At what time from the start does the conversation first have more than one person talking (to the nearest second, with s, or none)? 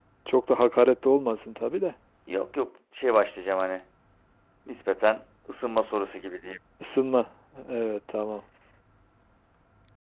none